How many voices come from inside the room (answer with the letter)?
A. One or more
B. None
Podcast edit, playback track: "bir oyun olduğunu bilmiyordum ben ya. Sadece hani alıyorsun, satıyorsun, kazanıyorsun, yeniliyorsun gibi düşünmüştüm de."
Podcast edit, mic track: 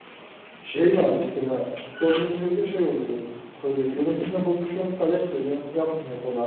A